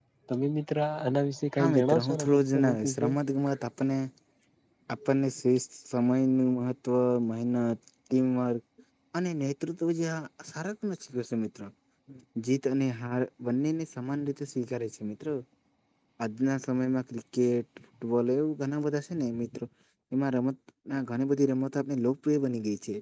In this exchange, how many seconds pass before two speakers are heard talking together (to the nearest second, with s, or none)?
2 s